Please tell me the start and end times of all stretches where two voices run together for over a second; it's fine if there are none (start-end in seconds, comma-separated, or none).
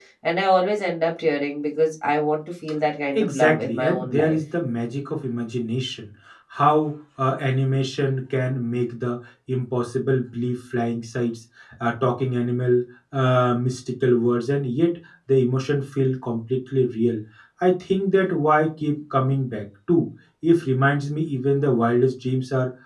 3.1-4.4